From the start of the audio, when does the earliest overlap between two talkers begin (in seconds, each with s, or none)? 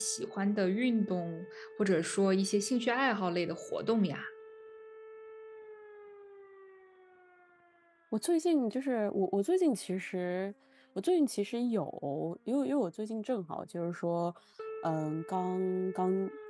none